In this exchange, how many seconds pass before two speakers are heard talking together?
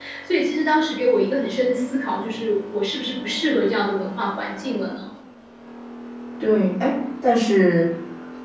none

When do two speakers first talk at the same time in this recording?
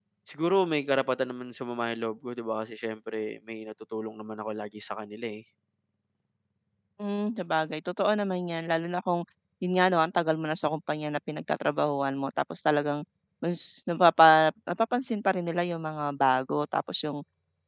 none

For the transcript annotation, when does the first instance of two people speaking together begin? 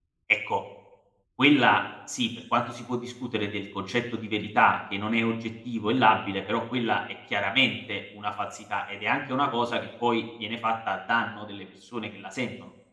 none

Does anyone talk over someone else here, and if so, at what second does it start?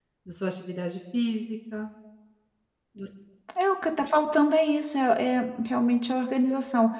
none

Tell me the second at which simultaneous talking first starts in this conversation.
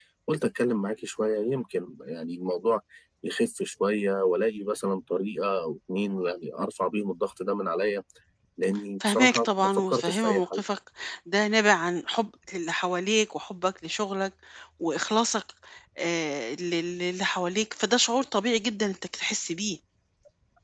9 s

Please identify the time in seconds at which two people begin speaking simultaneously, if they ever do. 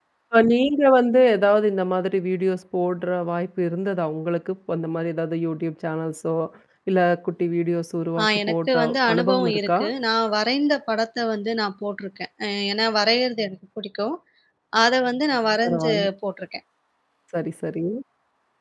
8 s

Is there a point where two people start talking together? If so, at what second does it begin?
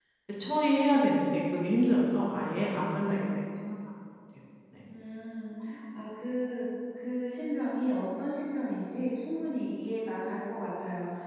none

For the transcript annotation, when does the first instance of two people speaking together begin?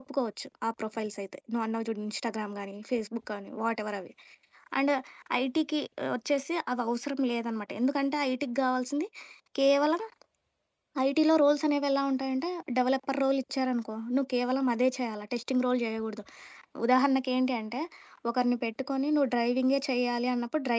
none

